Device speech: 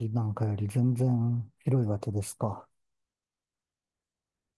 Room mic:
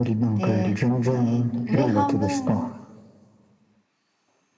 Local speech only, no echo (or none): で、えっと、上半分、